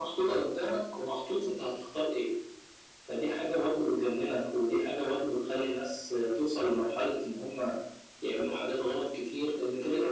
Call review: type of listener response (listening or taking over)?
taking over